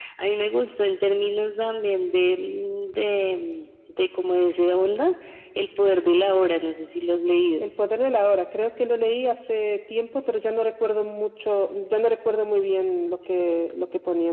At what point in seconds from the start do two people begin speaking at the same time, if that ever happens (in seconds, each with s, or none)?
none